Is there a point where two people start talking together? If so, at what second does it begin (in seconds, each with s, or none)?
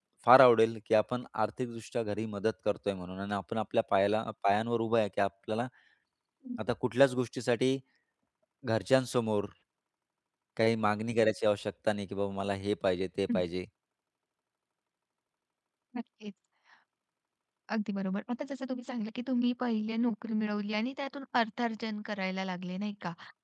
none